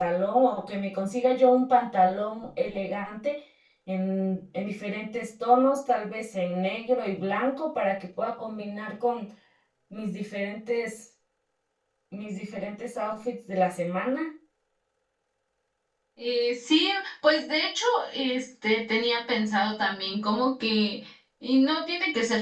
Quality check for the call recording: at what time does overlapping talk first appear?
none

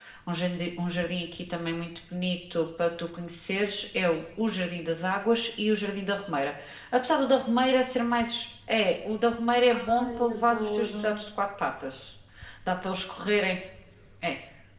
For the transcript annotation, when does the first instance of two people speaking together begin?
10 s

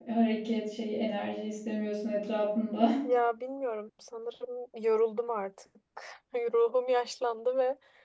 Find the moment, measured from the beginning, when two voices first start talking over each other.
none

